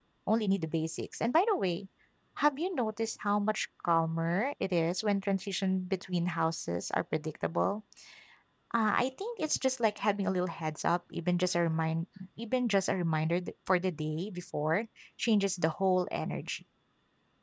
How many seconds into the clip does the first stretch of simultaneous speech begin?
none

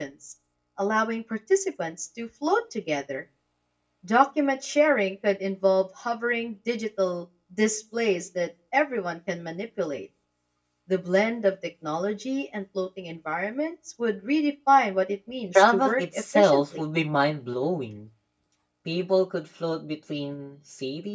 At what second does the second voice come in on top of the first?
16 s

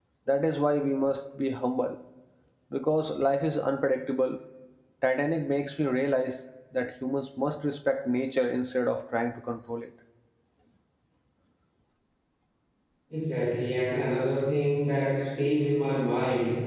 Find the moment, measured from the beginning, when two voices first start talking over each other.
none

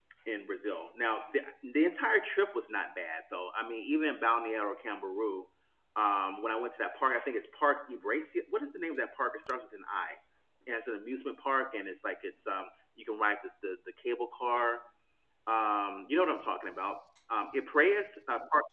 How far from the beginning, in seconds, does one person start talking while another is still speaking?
none

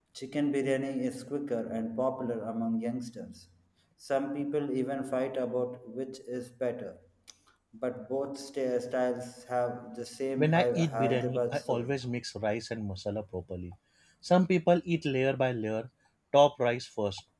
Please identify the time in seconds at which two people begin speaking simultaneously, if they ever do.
10 s

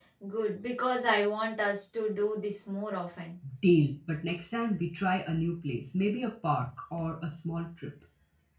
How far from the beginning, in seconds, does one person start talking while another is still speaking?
none

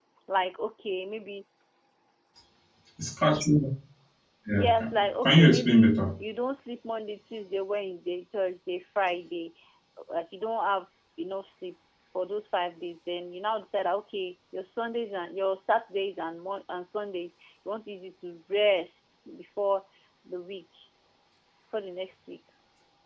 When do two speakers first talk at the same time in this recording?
5 s

